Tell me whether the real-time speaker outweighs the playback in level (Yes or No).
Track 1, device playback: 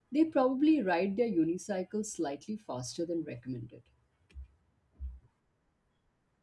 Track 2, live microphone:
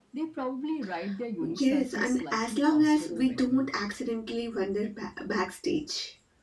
Yes